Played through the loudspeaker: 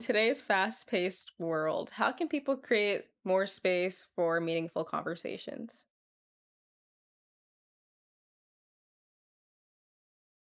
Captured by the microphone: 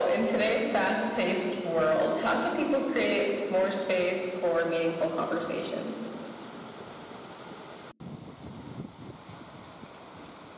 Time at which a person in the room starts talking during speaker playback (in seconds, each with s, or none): none